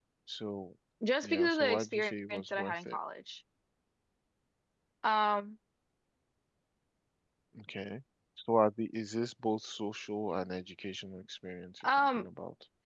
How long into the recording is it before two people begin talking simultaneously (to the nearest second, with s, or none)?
1 s